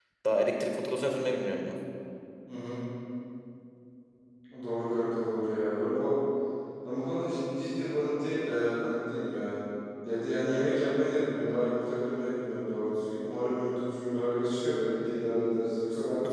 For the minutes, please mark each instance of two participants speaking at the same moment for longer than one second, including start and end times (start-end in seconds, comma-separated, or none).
none